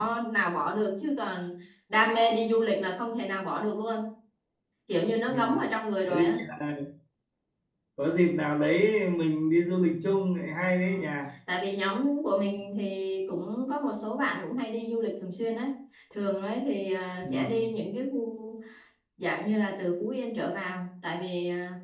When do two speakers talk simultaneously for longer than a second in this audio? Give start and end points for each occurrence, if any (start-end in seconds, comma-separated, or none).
none